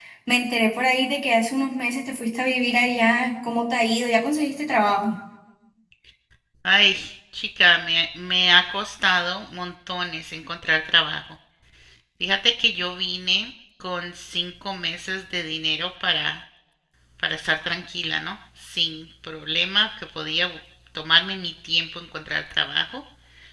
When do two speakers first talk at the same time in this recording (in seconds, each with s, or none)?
none